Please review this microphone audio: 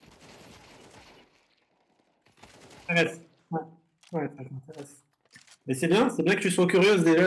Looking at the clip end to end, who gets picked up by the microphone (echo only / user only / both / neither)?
user only